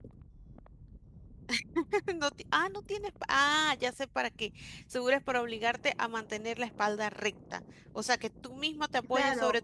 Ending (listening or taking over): taking over